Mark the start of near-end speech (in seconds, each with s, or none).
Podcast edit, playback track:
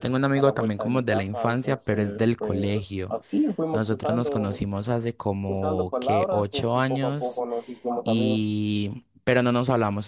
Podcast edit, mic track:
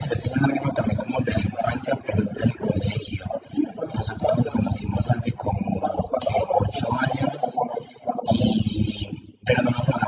none